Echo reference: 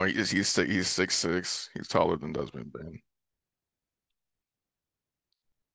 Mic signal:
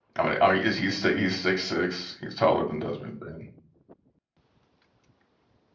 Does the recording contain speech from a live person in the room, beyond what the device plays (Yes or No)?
No